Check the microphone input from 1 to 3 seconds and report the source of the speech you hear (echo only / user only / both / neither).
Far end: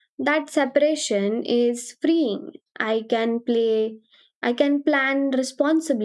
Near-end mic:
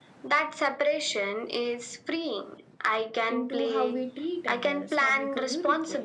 echo only